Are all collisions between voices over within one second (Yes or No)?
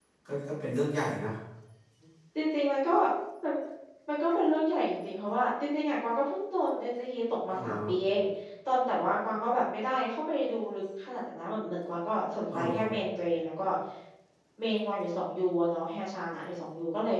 Yes